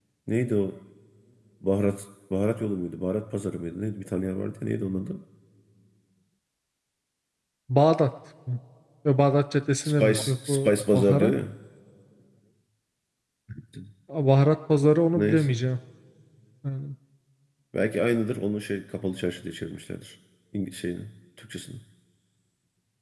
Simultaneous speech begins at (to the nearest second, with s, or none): 10 s